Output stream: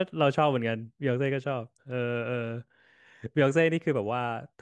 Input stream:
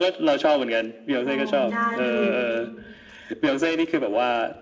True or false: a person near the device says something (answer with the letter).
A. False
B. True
B